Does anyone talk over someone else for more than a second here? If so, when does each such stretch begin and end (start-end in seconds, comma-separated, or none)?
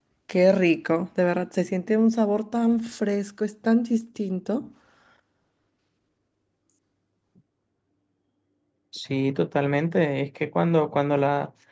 none